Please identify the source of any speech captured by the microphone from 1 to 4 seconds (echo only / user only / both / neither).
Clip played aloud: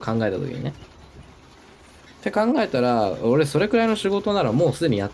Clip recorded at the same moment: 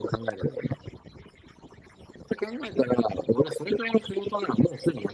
echo only